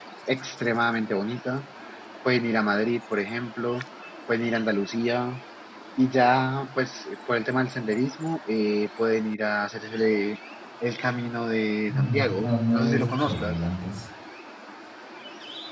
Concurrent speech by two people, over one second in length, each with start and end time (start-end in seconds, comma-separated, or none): 11.9-13.6